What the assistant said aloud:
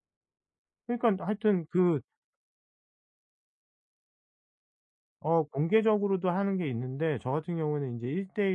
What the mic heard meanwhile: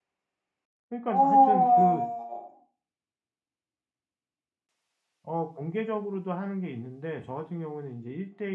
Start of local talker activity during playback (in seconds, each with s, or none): 1.0 s